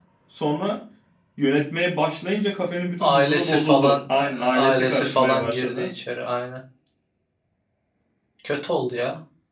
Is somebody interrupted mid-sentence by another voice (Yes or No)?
Yes